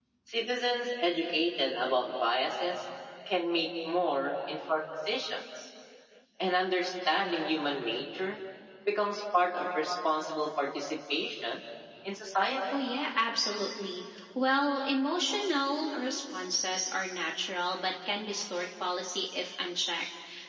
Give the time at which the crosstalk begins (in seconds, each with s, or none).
none